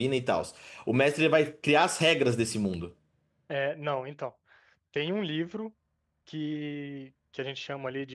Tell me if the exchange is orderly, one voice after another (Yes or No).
Yes